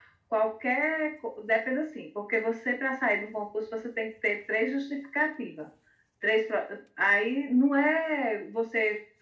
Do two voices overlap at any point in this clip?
No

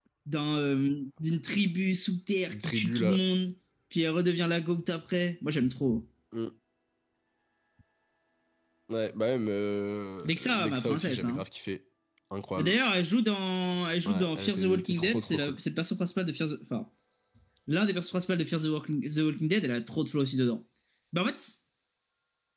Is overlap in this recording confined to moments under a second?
No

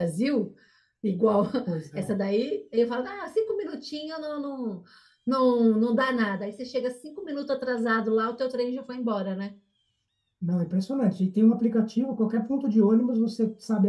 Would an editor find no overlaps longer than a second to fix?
Yes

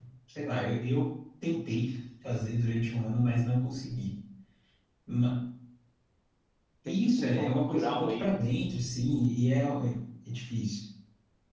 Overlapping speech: Yes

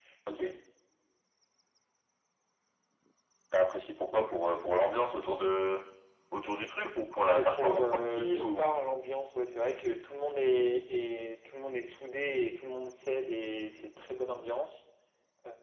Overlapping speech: Yes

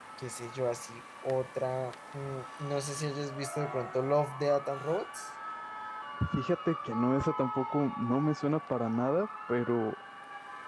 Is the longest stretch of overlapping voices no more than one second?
Yes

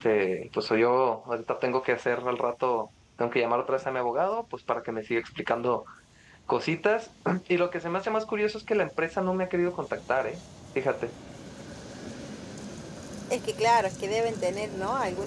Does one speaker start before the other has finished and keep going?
No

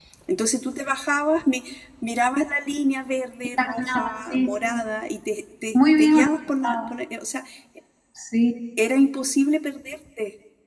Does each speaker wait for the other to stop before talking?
No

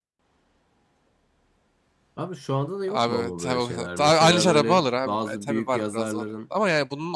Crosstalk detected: Yes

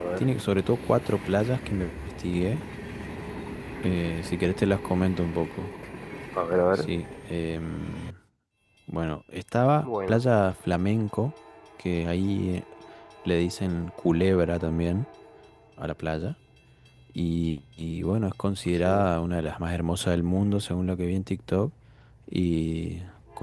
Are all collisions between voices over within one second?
Yes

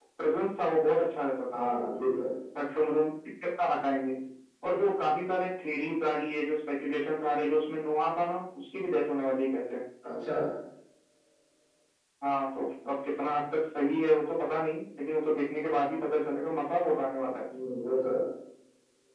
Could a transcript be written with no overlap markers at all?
Yes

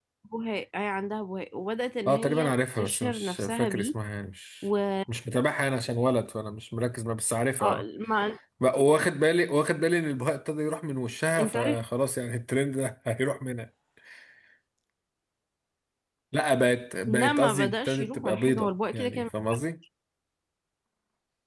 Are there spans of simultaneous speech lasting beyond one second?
Yes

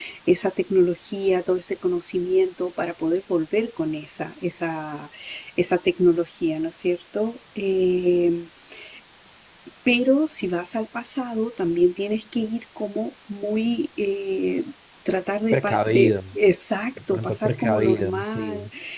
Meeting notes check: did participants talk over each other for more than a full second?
Yes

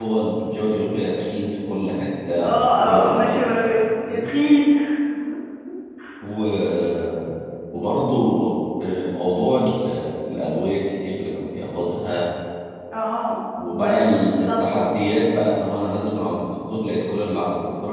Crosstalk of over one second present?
Yes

